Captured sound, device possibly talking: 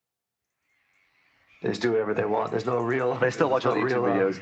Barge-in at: 3.2 s

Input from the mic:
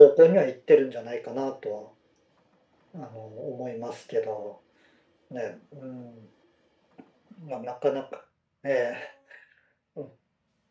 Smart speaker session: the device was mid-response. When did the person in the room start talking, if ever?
none

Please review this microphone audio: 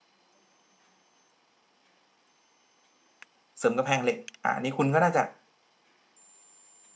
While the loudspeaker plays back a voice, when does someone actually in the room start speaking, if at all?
3.6 s

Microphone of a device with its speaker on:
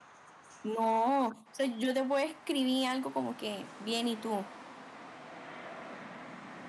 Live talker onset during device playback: 0.6 s

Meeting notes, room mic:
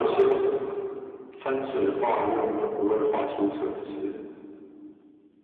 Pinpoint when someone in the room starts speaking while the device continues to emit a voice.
none

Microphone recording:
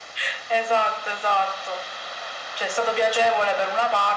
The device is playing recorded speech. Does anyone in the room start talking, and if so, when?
none

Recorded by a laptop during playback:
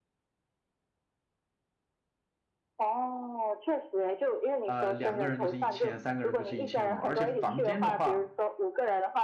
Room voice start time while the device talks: 4.7 s

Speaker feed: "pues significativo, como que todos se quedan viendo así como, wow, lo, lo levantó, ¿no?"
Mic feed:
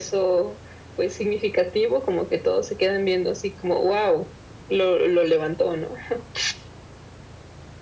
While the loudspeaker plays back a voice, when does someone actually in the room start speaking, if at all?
none

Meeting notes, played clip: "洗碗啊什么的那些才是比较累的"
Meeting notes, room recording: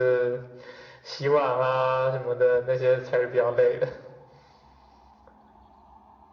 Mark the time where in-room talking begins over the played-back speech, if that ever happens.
none

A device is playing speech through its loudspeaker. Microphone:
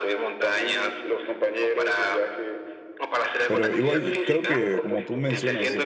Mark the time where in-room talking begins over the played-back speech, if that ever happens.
3.5 s

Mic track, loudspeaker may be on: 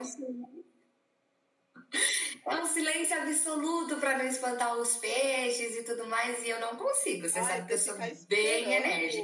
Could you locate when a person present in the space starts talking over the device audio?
7.3 s

